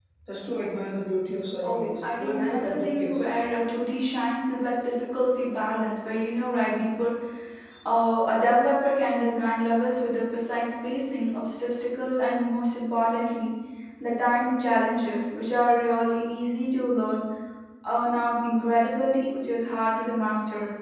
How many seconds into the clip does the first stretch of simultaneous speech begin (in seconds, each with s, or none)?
1.6 s